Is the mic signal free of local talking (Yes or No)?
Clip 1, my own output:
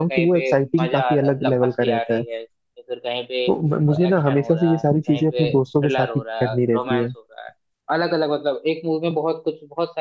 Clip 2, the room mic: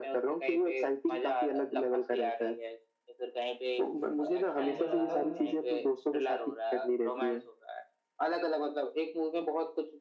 No